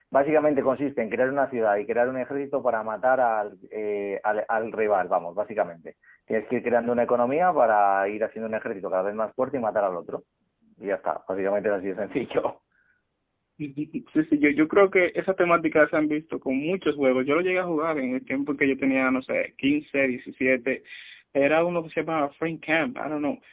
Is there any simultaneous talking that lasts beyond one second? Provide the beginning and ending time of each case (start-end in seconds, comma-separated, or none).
none